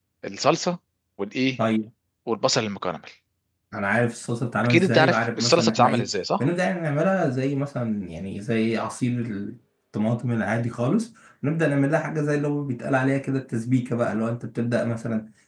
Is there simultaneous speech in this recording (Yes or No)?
Yes